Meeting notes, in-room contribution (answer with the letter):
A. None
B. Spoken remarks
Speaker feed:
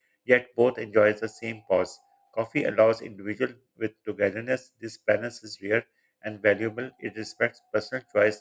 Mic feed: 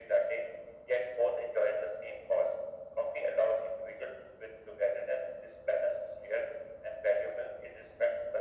A